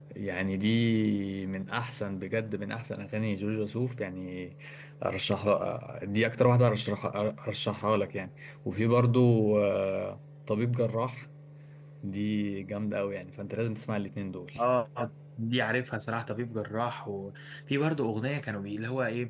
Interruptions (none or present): none